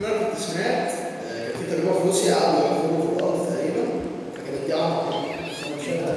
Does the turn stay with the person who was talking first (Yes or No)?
No